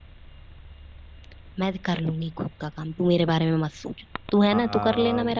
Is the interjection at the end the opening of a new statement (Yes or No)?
Yes